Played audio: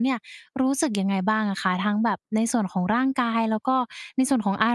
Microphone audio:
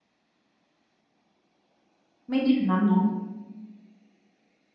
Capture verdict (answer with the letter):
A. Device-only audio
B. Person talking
B